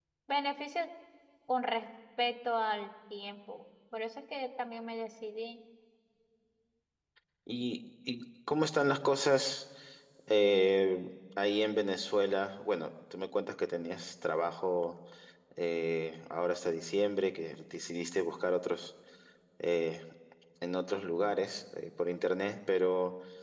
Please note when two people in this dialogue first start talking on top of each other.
none

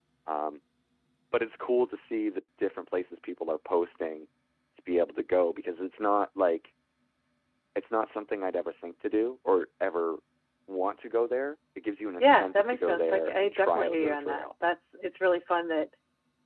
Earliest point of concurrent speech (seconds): 12.2 s

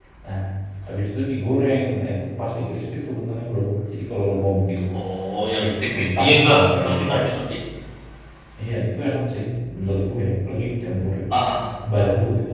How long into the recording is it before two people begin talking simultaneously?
5.6 s

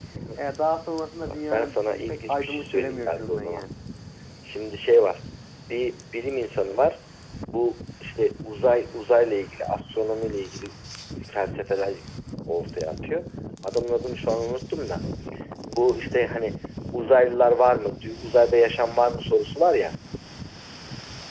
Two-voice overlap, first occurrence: 1.3 s

